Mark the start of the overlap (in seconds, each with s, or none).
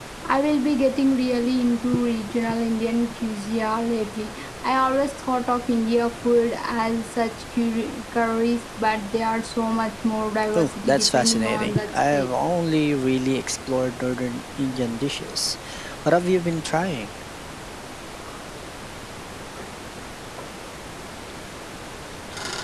10.5 s